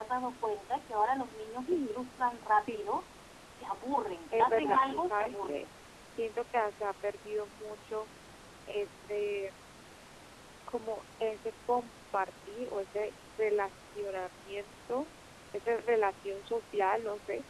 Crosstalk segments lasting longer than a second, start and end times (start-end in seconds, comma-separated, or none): 4.4-5.7